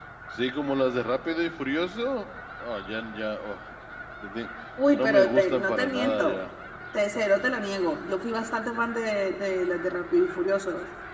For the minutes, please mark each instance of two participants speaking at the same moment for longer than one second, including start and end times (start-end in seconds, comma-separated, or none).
5.0-6.4